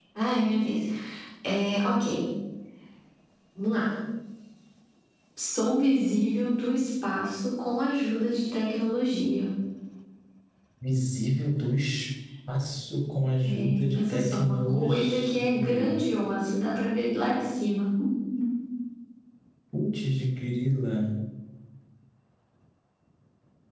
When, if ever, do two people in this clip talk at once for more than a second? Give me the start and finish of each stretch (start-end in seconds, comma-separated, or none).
13.4-15.9